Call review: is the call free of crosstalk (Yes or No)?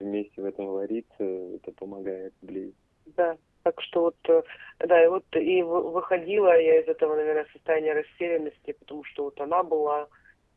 Yes